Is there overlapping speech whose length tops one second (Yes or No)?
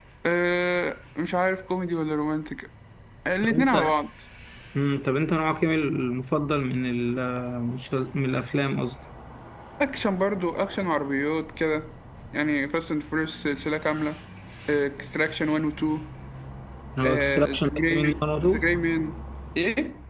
Yes